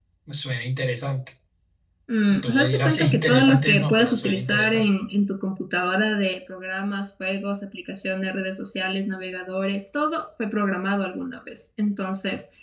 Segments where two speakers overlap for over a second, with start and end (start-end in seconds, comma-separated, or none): 2.4-4.8